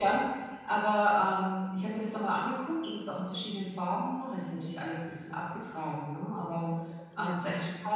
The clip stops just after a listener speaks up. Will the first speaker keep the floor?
Yes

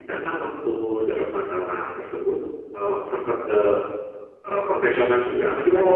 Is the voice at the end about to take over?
Yes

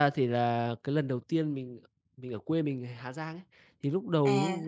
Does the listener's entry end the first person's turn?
No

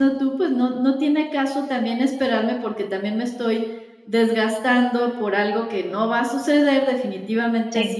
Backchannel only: Yes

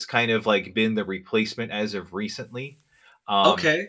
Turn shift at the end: Yes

